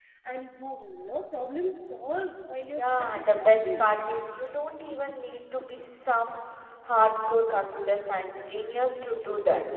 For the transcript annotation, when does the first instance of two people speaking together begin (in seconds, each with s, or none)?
2.7 s